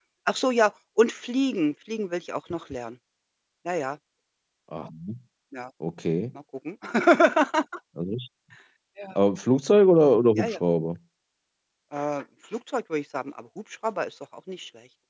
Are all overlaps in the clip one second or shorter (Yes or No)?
Yes